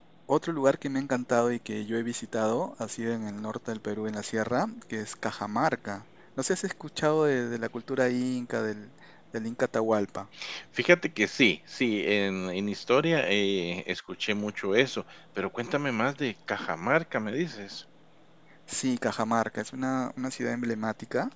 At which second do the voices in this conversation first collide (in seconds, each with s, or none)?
none